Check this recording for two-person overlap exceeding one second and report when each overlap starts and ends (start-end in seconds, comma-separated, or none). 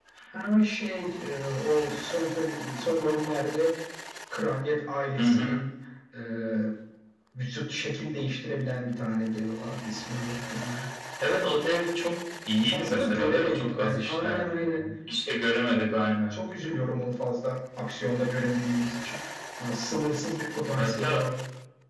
12.6-14.8